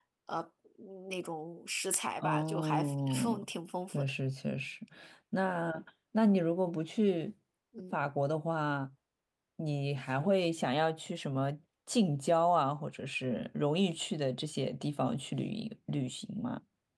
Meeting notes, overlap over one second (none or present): present